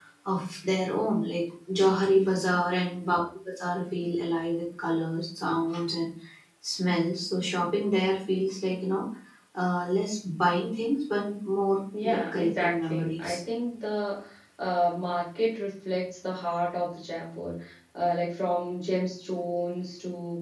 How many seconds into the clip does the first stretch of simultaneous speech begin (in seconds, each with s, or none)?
11.9 s